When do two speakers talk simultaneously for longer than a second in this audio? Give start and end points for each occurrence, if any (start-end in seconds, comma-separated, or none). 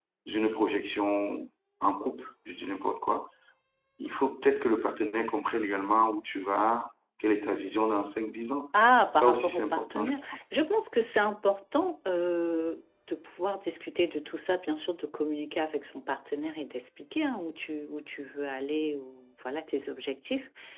9.1-10.4